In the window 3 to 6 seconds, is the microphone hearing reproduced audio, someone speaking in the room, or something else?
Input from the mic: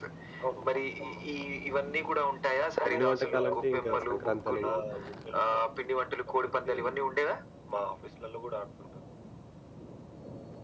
both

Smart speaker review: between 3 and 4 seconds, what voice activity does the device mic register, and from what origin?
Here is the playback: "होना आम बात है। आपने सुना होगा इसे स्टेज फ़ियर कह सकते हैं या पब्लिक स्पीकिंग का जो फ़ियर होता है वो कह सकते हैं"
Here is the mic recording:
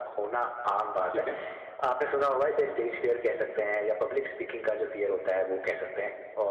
echo only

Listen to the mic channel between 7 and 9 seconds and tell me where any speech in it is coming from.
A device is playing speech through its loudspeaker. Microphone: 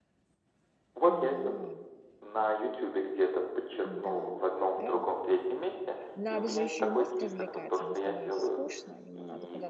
both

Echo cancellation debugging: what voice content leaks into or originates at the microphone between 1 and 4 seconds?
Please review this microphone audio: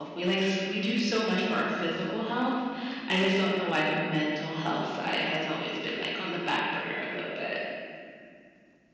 user only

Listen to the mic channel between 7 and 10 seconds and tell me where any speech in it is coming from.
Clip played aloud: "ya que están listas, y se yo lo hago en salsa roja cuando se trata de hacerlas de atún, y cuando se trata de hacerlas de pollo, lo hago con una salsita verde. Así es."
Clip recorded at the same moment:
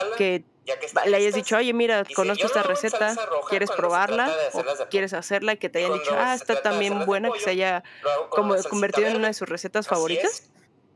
both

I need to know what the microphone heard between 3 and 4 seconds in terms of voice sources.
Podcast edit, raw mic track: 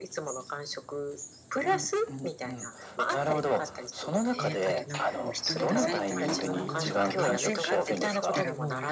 echo only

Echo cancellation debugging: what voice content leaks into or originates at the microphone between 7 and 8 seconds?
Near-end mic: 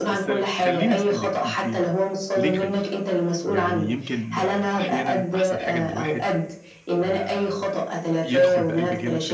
both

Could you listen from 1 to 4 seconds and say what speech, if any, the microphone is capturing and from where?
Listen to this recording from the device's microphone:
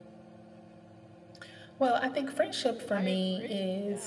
both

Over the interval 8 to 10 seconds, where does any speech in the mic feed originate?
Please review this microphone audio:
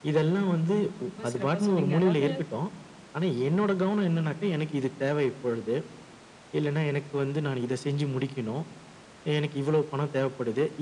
echo only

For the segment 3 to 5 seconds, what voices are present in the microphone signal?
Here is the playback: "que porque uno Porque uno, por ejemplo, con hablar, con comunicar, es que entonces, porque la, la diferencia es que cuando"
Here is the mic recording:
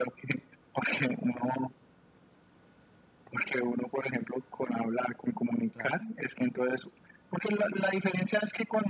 echo only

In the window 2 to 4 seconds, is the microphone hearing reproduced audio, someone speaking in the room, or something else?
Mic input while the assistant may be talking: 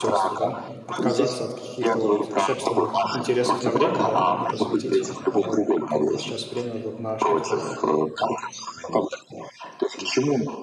both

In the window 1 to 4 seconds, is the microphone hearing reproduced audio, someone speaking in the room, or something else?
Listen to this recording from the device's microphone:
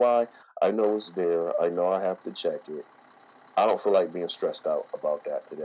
echo only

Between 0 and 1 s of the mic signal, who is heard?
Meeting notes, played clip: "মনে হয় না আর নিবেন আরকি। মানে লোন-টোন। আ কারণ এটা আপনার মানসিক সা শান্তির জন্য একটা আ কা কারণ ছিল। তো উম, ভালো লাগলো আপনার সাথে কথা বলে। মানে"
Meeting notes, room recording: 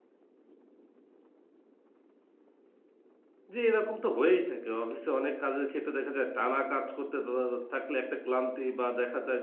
neither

